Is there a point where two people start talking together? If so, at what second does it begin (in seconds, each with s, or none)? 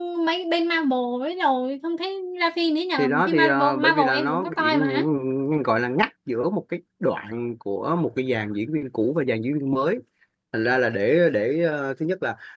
3.0 s